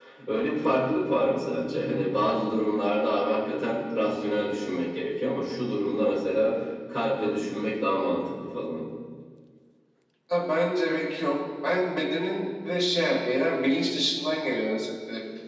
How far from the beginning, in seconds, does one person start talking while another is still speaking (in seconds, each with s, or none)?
none